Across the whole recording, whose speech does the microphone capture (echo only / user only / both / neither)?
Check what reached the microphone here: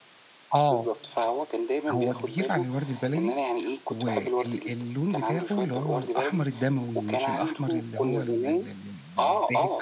both